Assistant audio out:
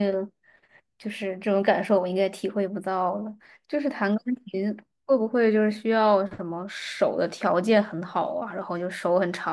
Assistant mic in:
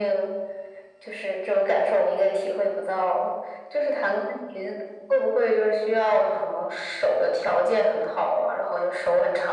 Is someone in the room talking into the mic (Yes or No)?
No